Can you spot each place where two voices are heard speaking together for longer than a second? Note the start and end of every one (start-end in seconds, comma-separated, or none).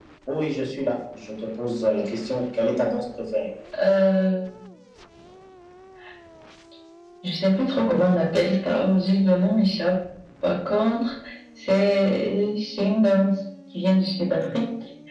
none